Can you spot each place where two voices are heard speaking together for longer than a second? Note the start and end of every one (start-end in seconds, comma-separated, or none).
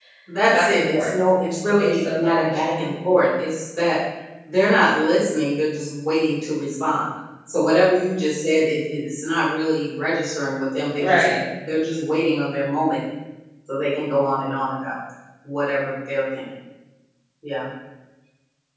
0.5-2.9